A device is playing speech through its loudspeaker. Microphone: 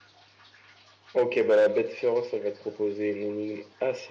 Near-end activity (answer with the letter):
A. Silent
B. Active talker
A